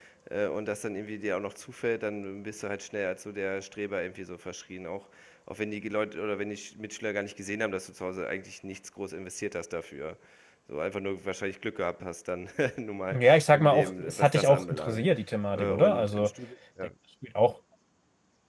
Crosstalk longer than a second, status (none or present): present